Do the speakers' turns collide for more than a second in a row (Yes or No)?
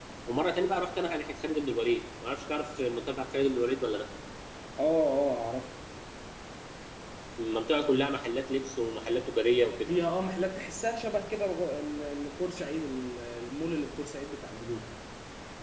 No